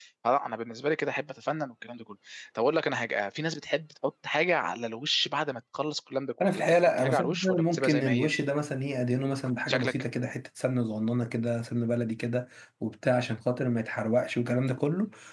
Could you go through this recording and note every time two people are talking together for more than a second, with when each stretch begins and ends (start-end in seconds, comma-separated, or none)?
6.4-8.3